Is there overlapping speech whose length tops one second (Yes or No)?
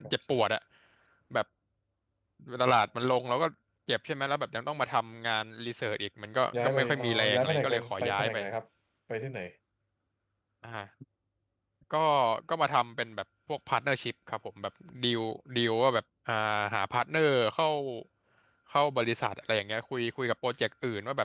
Yes